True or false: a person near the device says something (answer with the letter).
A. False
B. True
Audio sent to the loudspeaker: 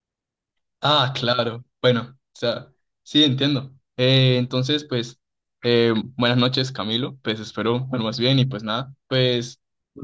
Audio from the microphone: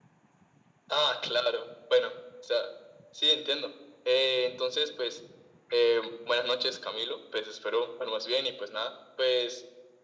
A